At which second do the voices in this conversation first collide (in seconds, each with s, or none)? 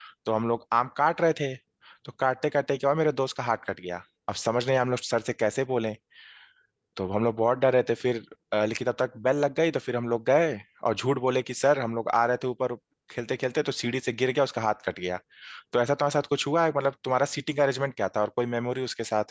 none